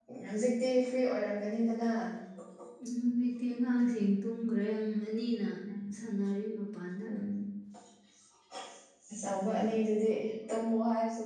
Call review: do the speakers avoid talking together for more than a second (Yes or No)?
Yes